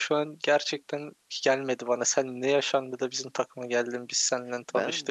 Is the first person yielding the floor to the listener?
Yes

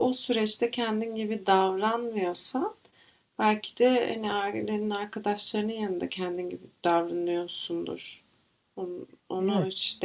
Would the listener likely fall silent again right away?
Yes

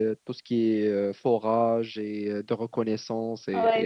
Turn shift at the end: Yes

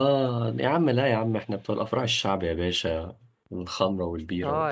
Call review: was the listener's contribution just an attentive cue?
No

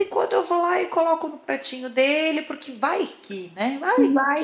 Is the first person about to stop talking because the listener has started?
Yes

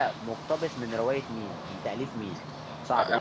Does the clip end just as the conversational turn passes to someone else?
Yes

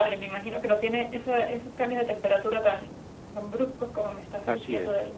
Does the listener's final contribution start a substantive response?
Yes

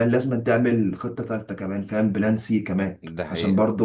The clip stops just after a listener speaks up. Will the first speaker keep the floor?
Yes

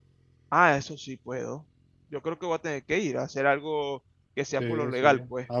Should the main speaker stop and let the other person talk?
Yes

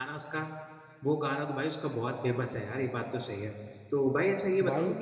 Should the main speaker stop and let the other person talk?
No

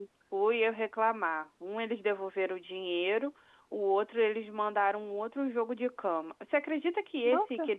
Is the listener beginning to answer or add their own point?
No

